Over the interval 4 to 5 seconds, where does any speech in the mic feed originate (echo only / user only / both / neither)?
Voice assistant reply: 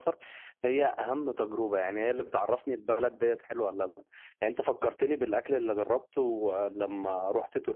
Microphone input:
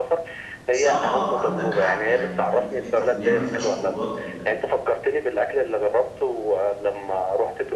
both